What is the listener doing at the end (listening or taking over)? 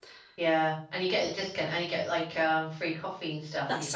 taking over